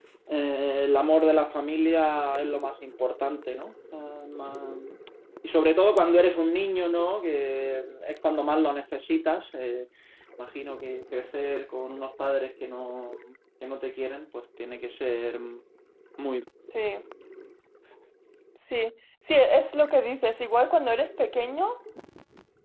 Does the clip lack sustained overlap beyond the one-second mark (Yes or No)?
Yes